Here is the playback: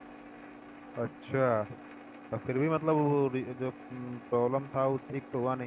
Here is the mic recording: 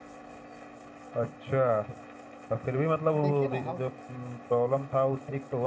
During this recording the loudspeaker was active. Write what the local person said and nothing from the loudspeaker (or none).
देखिए ना हम